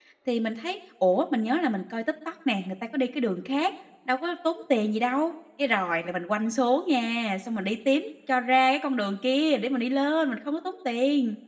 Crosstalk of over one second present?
No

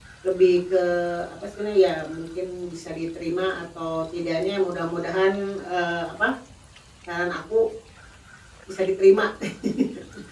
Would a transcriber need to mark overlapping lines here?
No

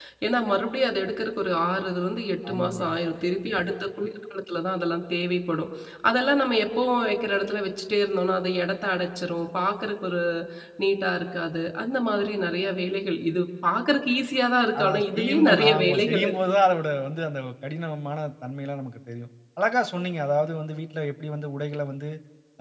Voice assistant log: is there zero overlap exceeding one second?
No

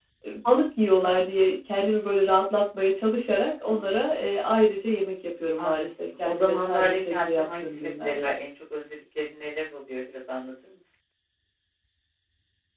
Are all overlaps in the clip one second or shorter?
No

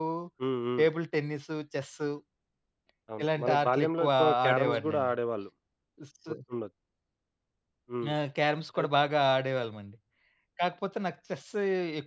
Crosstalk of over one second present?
Yes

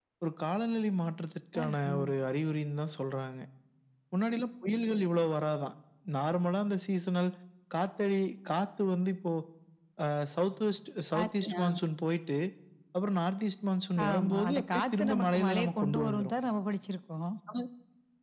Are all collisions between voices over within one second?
No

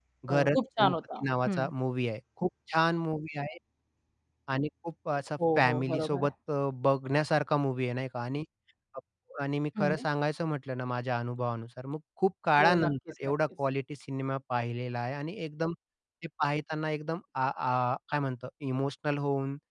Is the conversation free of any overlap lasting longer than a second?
No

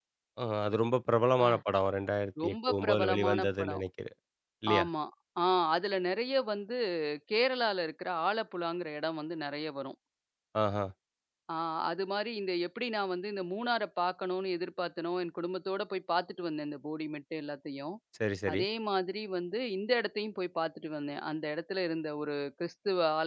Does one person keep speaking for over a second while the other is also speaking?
Yes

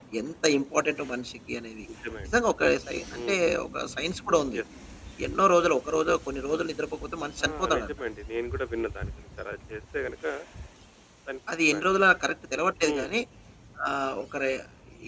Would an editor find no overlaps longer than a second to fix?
Yes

